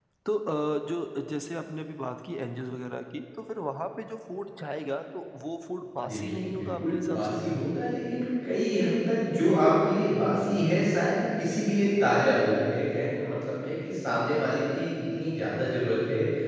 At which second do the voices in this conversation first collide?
6.0 s

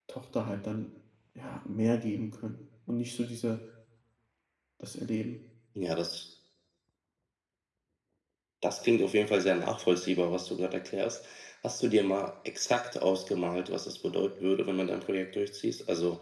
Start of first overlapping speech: none

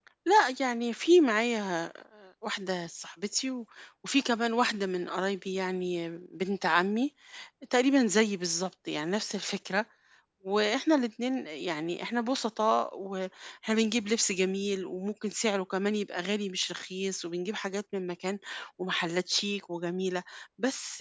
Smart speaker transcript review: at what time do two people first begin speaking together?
none

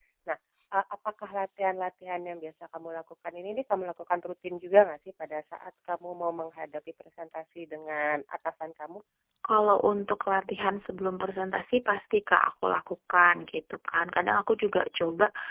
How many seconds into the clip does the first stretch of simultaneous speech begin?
none

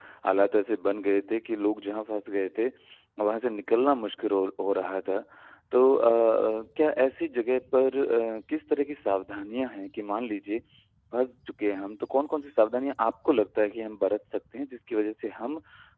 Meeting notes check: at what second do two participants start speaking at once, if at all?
none

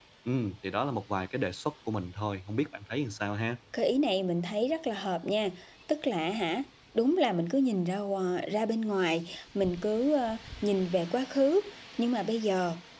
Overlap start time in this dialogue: none

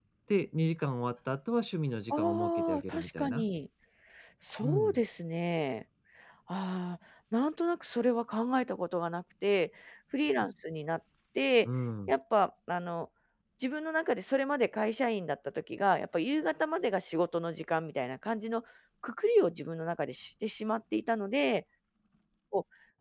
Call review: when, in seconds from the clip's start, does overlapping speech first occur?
2.1 s

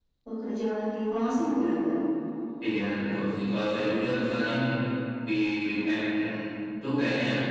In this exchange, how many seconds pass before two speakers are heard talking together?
none

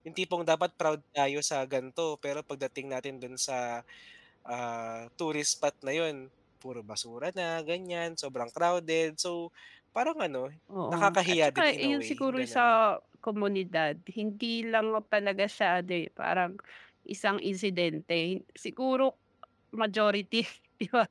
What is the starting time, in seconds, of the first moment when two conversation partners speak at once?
10.9 s

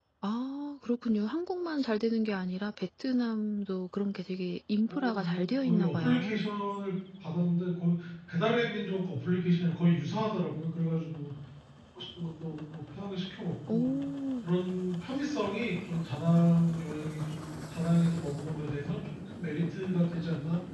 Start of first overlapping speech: 4.9 s

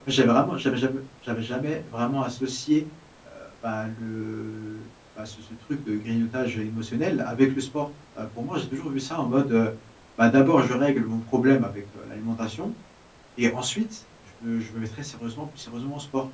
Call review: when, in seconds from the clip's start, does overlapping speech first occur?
none

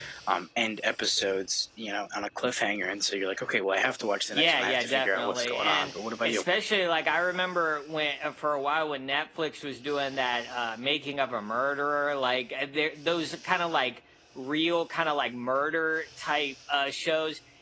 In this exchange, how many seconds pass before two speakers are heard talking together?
4.3 s

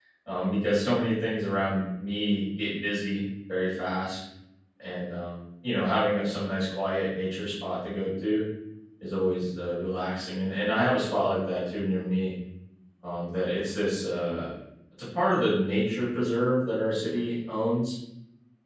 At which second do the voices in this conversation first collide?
none

